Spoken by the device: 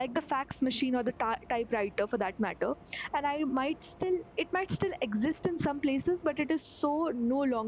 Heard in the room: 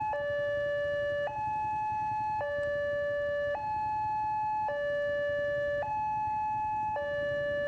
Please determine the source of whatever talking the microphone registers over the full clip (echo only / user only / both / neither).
neither